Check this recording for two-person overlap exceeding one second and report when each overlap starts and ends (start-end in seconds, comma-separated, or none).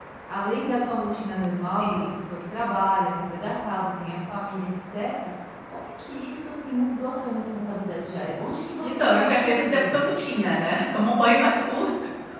8.8-10.2